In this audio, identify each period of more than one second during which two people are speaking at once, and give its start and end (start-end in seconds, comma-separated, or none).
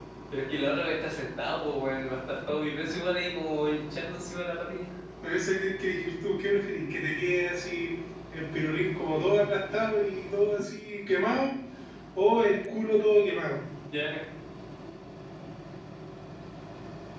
none